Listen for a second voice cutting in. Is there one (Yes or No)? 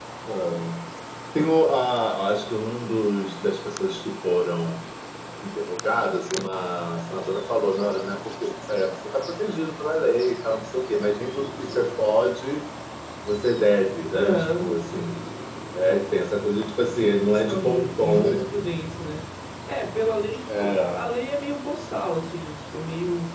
Yes